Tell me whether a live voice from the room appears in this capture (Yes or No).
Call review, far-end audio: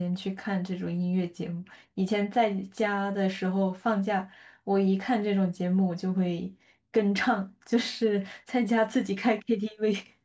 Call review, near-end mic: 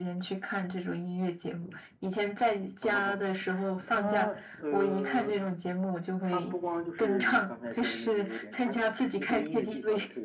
Yes